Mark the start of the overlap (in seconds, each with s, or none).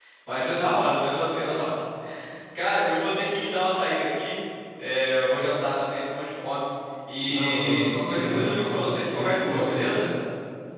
7.2 s